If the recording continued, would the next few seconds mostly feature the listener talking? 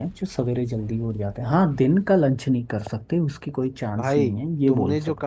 Yes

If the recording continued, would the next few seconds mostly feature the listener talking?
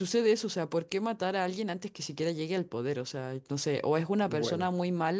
No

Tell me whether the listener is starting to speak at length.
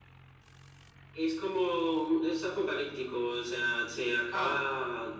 No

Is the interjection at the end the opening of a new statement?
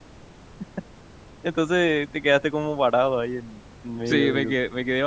Yes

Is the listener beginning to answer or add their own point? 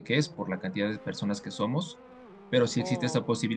No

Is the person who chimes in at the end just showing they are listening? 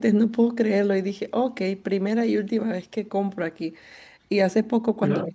Yes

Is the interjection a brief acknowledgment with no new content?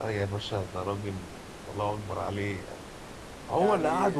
Yes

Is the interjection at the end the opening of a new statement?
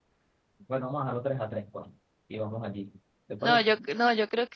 Yes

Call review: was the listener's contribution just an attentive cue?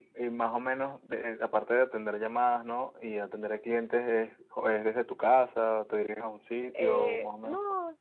No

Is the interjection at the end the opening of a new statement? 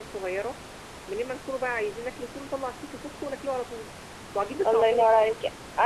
Yes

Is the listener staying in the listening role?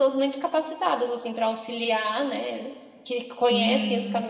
No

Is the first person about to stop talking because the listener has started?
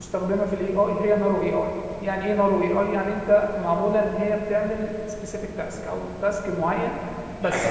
Yes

